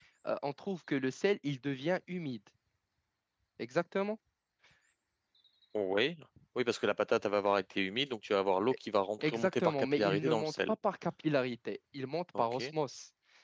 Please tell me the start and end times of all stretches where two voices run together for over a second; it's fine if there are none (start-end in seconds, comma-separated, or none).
9.2-10.6